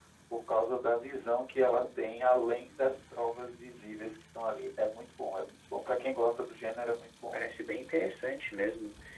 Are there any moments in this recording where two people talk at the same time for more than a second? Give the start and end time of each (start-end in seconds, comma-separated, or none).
none